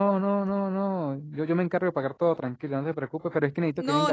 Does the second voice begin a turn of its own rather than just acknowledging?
Yes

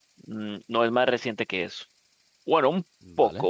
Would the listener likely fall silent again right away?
Yes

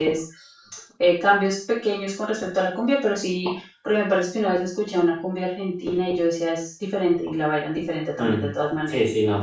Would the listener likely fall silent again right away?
No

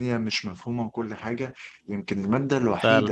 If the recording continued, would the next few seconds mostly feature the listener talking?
No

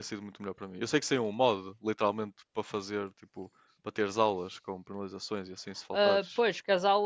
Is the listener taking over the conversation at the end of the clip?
Yes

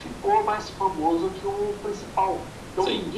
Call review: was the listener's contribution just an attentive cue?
Yes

